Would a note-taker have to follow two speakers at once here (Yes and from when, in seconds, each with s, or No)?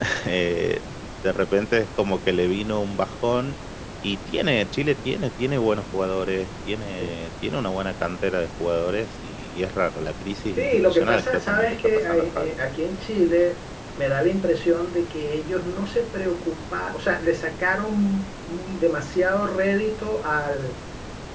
Yes, from 10.6 s